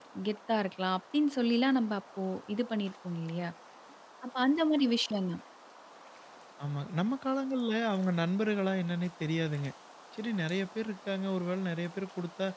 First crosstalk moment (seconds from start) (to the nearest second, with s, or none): none